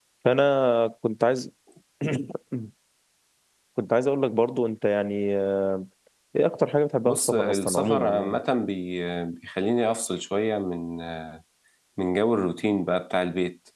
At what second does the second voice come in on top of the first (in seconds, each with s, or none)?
7.0 s